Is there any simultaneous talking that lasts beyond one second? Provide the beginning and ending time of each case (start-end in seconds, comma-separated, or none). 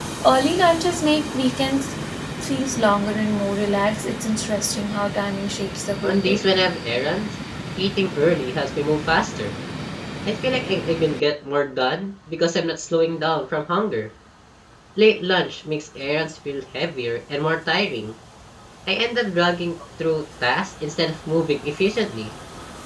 none